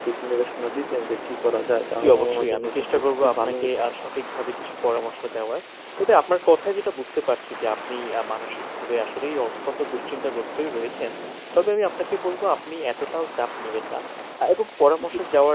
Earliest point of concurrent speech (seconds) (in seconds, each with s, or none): 2.0 s